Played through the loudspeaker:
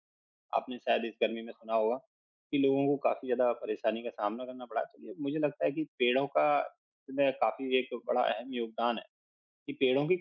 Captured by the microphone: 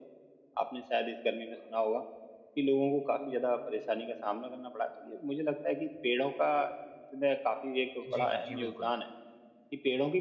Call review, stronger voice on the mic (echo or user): echo